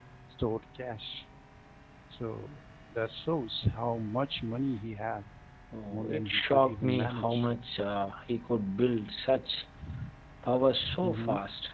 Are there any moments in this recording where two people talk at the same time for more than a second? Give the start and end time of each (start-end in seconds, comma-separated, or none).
5.9-7.5